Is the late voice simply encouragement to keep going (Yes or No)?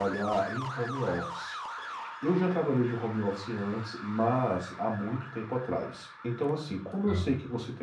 Yes